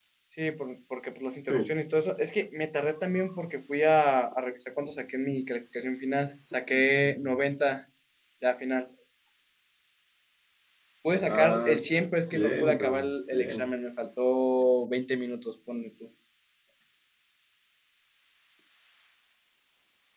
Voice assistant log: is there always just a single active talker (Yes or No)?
No